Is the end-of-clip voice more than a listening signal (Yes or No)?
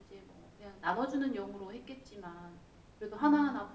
No